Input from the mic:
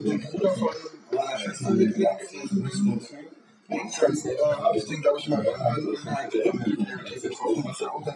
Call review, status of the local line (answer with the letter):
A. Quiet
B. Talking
A